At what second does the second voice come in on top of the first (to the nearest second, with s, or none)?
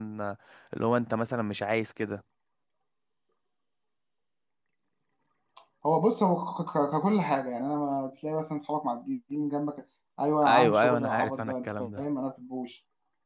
10 s